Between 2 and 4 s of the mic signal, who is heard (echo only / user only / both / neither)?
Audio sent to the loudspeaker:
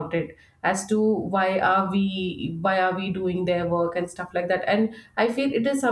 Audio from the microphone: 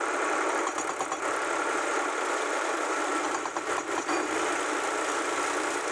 neither